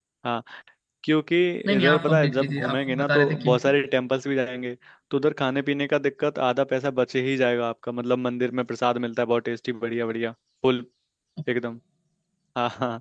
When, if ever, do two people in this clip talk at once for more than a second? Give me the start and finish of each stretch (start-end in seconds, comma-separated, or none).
1.8-3.6